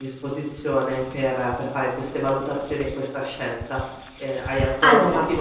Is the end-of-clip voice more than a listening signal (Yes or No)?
No